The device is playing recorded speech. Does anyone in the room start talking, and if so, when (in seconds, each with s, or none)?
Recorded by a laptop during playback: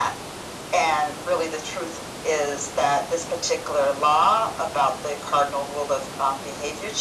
none